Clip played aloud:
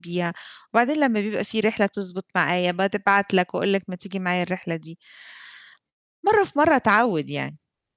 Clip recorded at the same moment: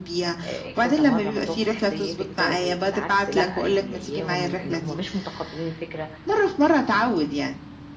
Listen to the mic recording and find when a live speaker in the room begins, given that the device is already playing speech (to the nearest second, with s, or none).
0 s